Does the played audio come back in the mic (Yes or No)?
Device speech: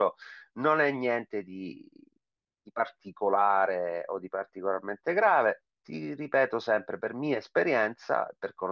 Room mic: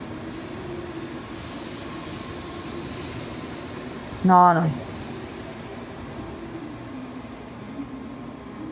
No